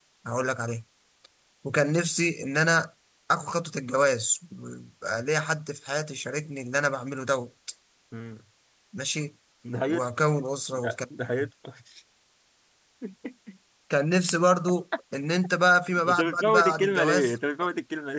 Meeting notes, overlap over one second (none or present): present